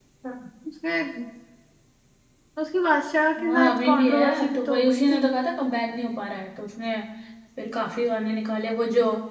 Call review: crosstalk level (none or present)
present